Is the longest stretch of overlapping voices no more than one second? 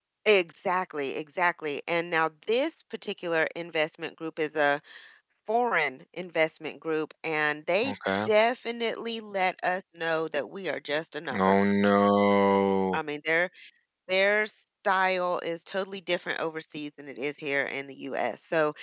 Yes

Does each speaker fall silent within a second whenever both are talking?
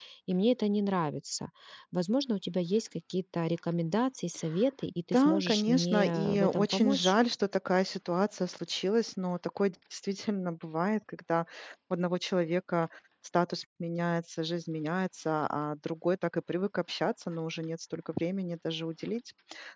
No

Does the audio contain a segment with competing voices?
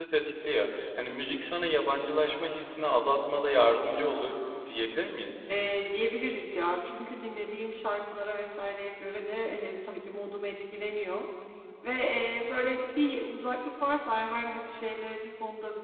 No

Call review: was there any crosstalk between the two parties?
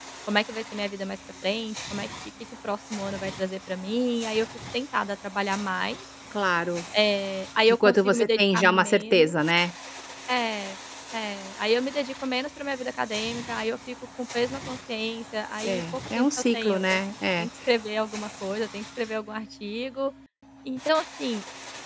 Yes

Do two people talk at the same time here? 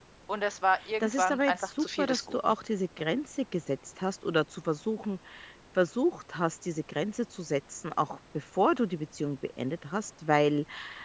Yes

